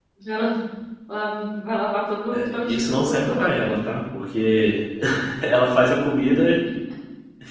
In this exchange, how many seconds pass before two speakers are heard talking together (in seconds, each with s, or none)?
2.3 s